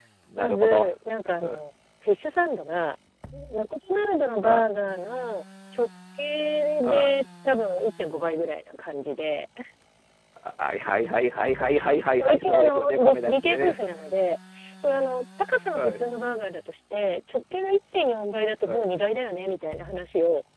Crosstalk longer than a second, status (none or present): present